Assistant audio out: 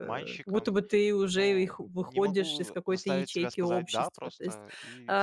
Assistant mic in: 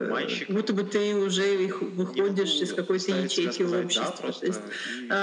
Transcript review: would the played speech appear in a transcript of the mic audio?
Yes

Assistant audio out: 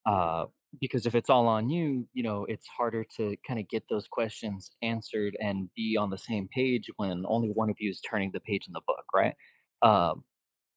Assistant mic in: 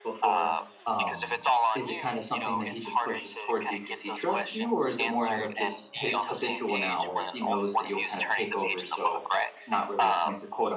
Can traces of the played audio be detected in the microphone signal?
Yes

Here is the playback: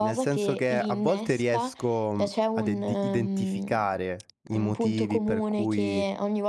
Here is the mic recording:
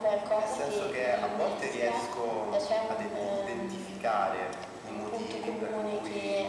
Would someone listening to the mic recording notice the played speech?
Yes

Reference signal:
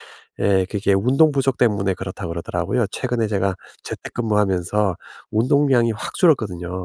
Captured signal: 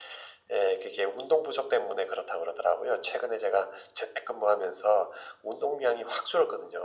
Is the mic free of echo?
No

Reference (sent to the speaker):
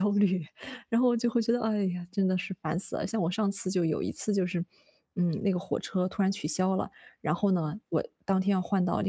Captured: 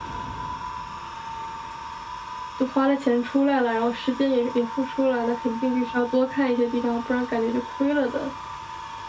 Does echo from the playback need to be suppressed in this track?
No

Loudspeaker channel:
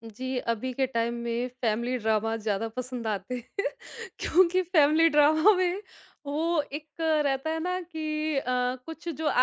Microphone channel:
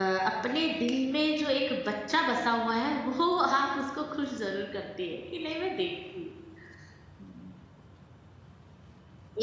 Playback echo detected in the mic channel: No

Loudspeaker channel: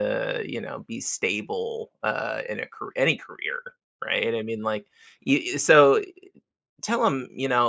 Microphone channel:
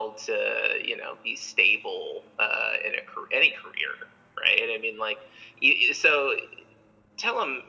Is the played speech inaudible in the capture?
No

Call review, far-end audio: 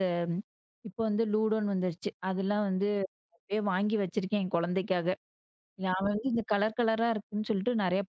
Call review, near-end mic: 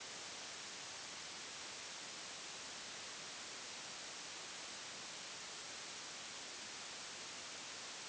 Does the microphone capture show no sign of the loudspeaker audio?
Yes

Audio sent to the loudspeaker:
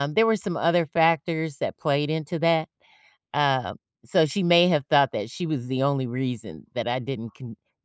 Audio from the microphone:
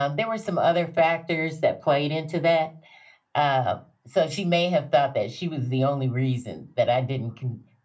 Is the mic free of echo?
No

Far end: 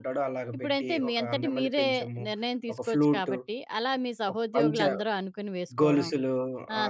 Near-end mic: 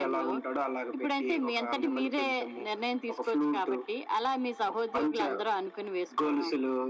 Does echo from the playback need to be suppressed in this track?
Yes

